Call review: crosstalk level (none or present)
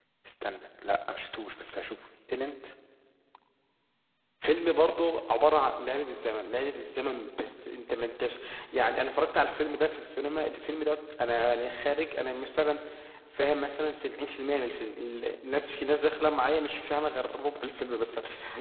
none